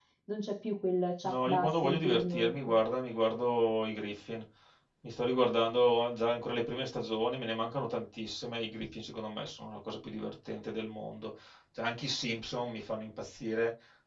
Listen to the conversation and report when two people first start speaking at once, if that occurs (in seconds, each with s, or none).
1.2 s